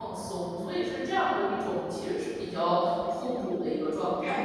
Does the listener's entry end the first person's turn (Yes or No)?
Yes